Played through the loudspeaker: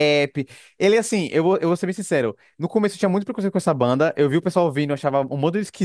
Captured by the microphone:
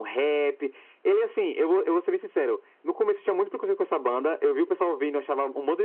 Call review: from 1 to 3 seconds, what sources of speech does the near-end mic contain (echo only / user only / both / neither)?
echo only